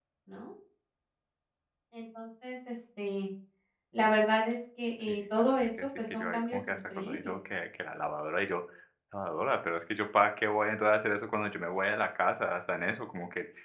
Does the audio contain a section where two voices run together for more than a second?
Yes, from 5.0 s

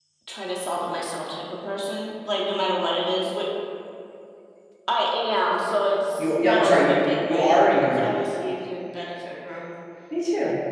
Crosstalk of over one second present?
Yes, from 6.2 s

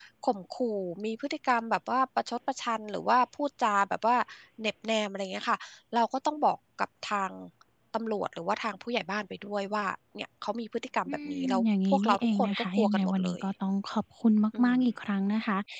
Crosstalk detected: Yes, from 11.1 s

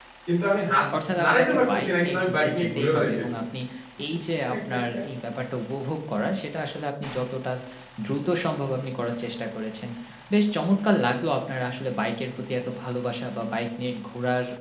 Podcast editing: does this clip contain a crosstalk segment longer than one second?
Yes, from 1.2 s

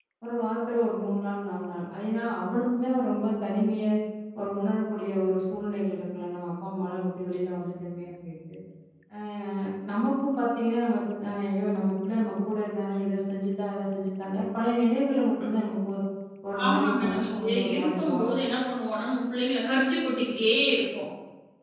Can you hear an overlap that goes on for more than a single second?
Yes, from 16.6 s

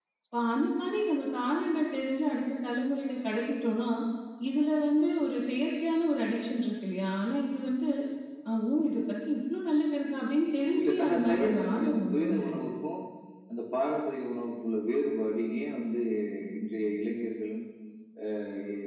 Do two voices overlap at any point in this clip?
Yes, from 10.8 s

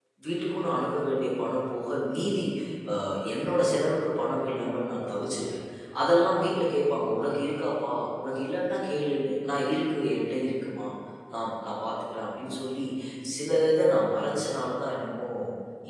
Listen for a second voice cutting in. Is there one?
No

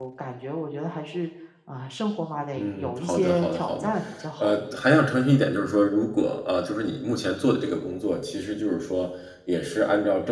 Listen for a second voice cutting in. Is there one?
Yes, from 2.6 s

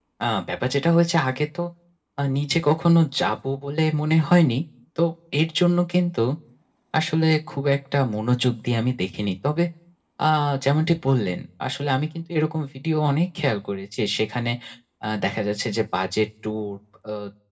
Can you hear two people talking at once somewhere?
No

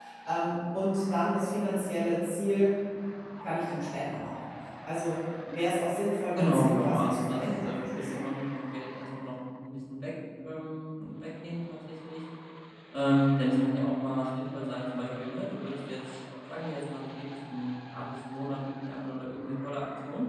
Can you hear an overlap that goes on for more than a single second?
Yes, from 6.4 s

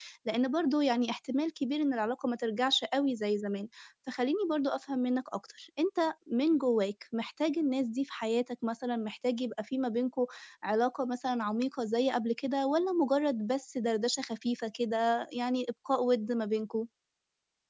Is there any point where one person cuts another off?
No

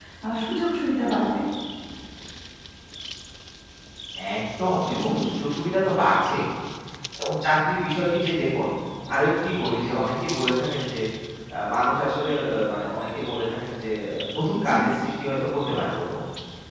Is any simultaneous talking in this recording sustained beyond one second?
No

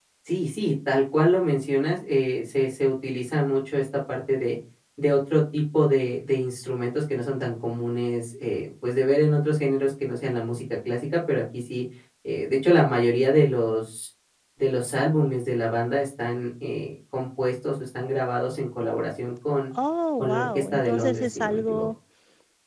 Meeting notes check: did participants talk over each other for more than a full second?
Yes, from 20.2 s

